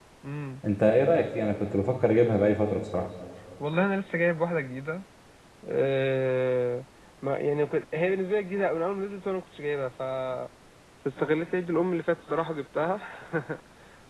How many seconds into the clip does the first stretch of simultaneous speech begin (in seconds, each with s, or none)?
none